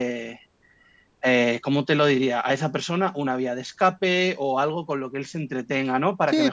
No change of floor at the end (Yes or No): No